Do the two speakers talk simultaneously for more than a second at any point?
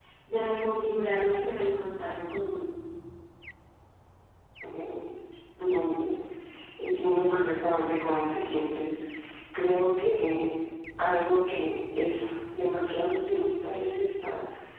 No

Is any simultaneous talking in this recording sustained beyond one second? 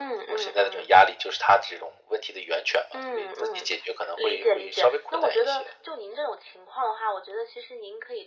Yes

